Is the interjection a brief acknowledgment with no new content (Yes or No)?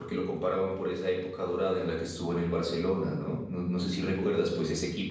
Yes